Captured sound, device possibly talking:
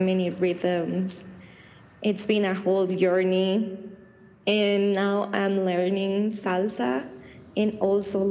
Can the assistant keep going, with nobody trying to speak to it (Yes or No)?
Yes